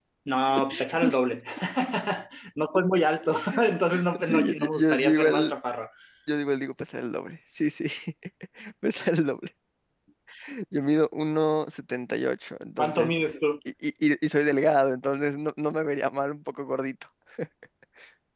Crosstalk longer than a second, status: present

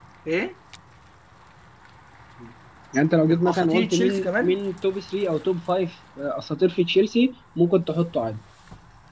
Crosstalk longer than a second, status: present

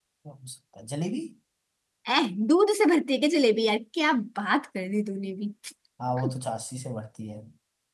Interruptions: none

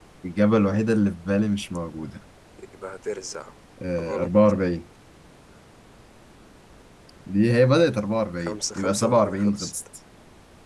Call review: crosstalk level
present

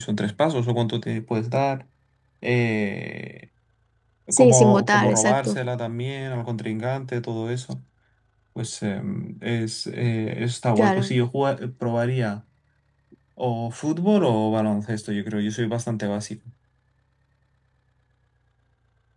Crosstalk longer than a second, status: present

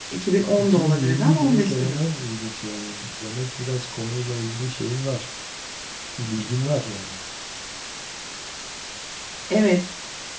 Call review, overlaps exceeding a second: present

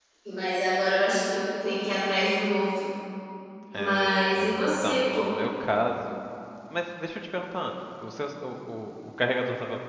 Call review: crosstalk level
present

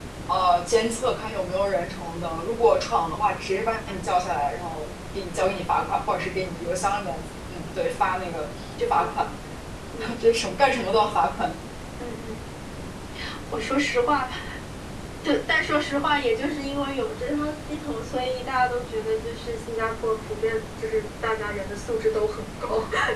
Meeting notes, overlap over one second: none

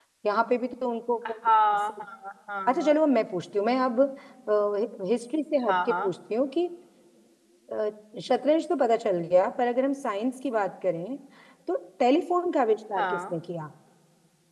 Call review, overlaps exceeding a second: none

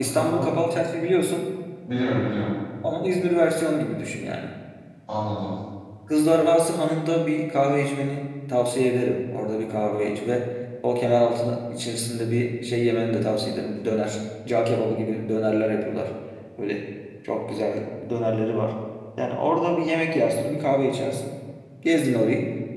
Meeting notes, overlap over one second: none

